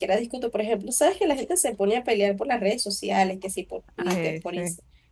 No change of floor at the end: Yes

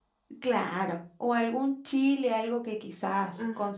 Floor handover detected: No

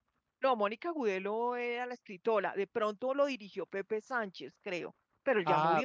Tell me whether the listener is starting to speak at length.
Yes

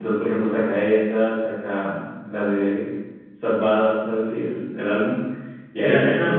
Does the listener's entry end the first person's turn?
Yes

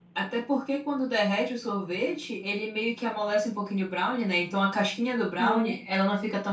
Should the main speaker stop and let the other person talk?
No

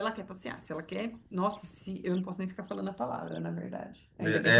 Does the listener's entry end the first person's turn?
Yes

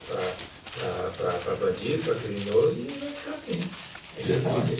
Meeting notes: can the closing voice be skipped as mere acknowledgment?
Yes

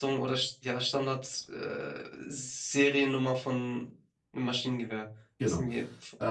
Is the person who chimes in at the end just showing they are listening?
No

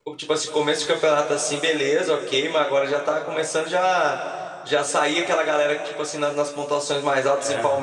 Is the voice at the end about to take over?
No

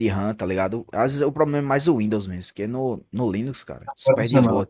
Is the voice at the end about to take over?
No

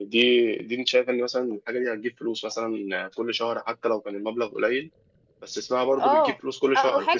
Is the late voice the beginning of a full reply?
Yes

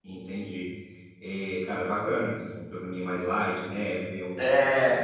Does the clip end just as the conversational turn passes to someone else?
No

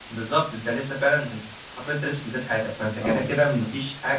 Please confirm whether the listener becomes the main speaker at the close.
No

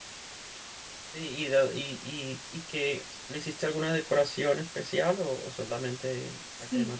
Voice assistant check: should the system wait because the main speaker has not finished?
No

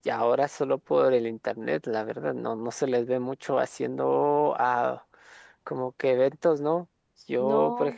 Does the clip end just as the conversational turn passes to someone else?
No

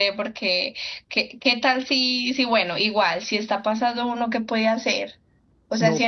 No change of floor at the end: Yes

